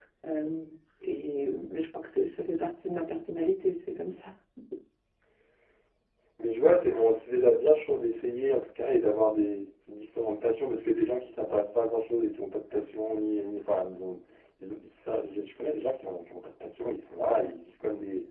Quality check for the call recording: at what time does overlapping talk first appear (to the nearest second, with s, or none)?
none